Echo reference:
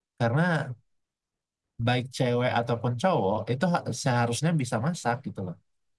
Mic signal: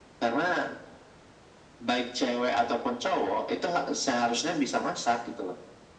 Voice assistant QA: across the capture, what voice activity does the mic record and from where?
echo only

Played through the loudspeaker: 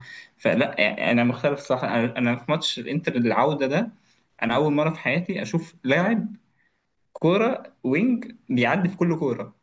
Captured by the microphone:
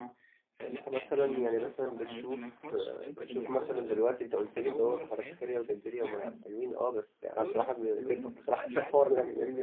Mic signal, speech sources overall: both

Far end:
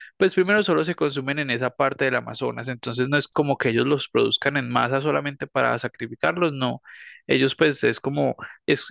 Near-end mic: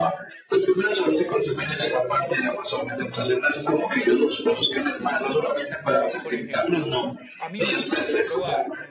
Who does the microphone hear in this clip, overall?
both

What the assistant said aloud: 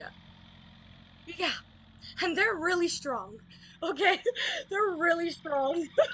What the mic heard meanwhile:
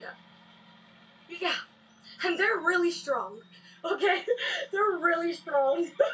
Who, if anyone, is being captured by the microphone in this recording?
echo only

